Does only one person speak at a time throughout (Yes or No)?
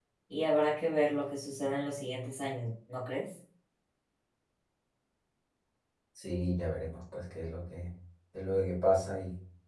Yes